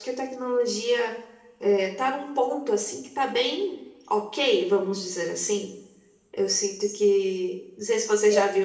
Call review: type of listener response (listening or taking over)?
listening